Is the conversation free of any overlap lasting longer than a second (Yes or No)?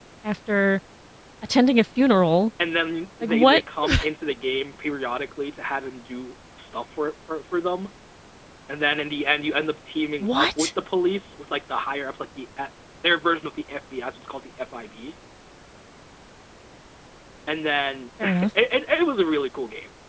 Yes